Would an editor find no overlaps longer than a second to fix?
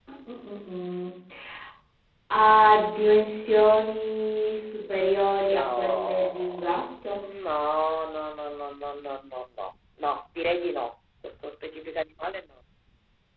No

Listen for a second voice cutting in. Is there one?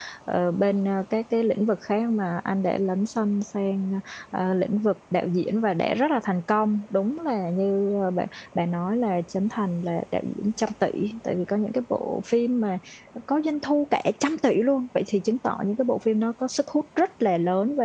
No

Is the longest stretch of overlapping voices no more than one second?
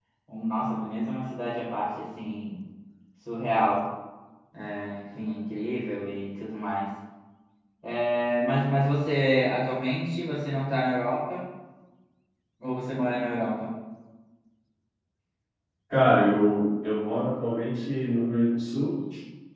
Yes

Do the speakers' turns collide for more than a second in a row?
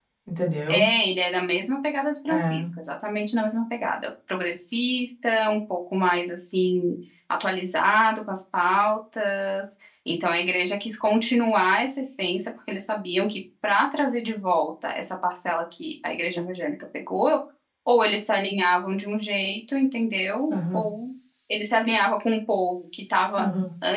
No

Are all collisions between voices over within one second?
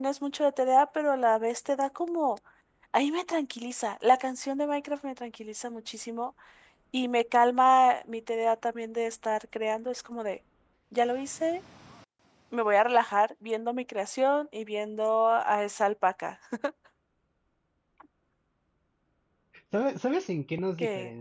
Yes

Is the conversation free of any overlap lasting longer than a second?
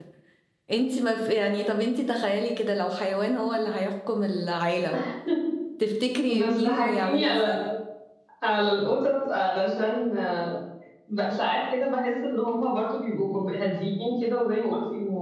No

